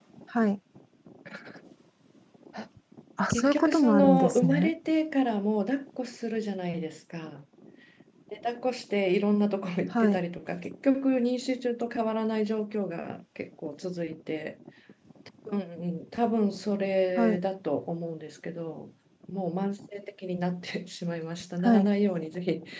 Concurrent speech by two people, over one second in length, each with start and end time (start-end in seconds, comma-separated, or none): 3.3-4.7